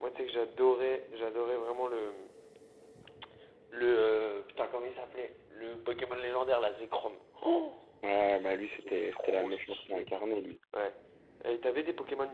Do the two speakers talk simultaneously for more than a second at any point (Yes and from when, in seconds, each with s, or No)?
Yes, from 8.7 s